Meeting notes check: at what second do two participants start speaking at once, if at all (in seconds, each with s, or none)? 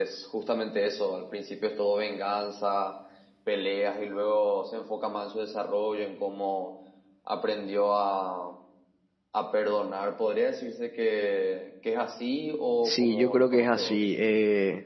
12.8 s